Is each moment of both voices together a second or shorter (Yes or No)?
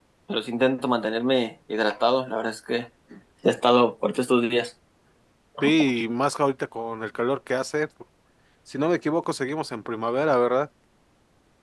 Yes